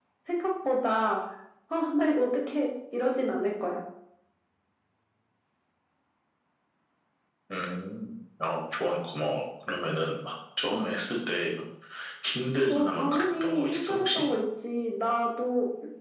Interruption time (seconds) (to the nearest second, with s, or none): 13 s